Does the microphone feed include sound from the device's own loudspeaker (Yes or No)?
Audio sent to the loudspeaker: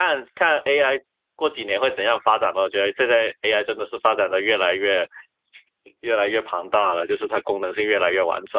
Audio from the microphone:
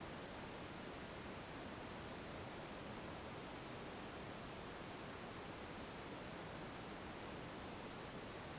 No